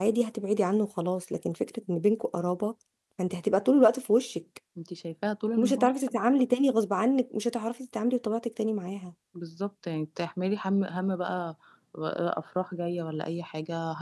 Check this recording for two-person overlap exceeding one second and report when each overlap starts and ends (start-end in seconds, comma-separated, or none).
none